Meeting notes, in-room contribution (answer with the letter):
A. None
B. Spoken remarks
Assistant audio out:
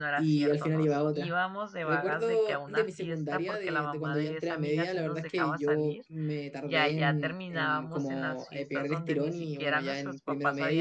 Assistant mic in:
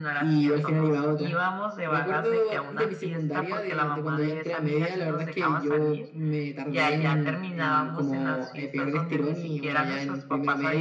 A